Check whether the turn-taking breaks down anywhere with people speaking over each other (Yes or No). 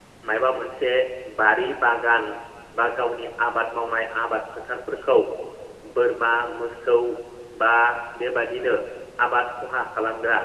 No